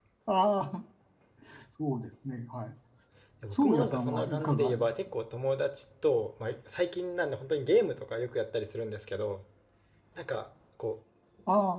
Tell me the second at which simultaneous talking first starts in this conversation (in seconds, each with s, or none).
3.5 s